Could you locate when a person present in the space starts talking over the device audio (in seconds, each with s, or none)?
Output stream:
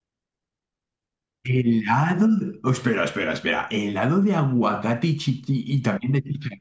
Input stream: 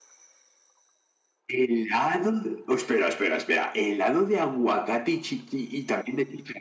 none